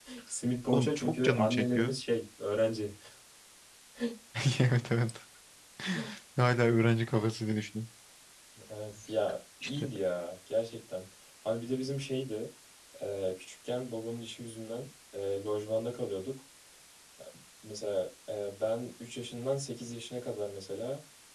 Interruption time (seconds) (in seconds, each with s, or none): 0.7 s